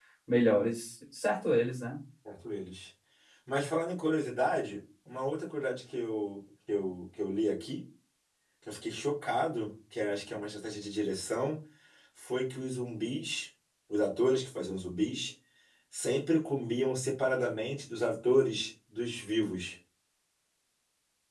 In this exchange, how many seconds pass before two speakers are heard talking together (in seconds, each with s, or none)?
none